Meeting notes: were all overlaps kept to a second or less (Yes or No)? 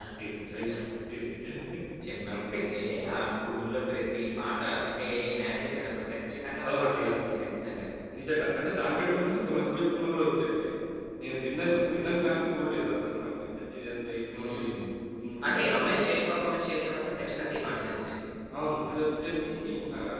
Yes